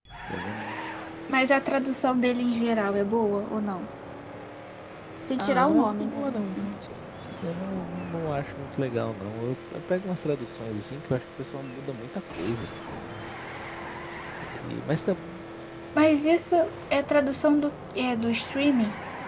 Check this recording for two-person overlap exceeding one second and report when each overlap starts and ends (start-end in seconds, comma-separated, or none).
5.4-6.7